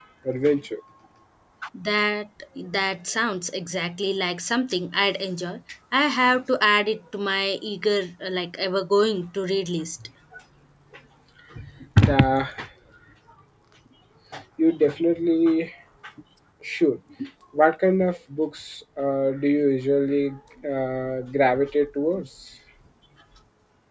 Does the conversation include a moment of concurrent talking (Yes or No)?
No